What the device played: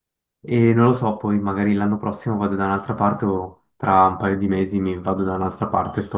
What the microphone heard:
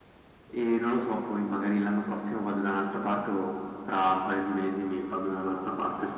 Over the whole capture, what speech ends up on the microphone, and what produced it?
echo only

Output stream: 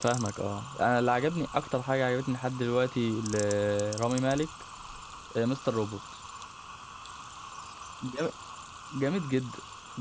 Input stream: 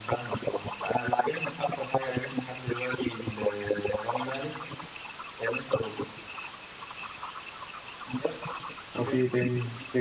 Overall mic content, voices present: both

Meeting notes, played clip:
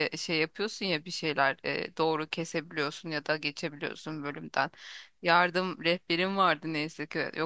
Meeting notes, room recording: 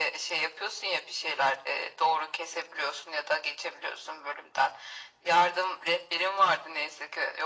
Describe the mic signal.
echo only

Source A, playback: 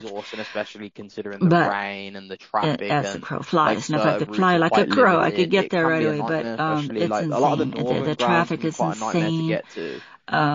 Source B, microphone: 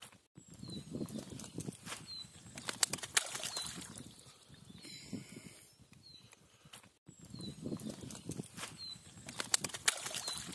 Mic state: neither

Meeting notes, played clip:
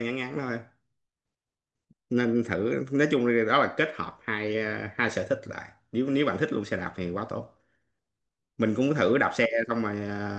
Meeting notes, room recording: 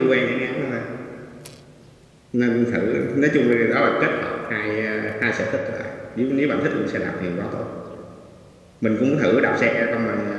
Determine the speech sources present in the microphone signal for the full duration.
echo only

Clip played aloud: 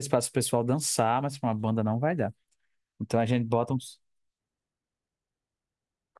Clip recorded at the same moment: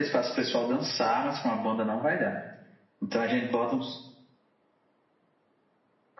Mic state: echo only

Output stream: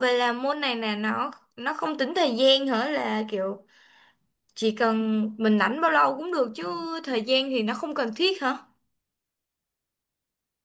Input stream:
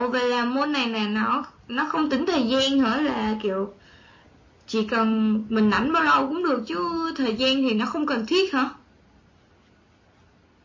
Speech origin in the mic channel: echo only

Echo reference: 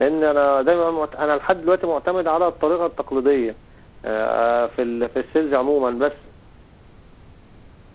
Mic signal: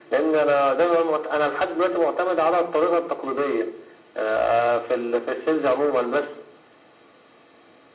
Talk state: echo only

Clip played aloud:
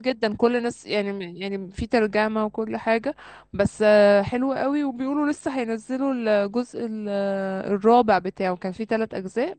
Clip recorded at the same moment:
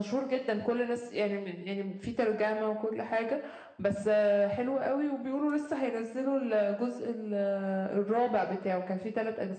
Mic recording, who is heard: echo only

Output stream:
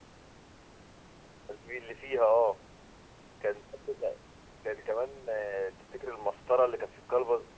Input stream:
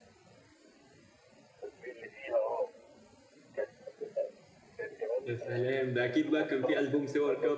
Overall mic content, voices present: both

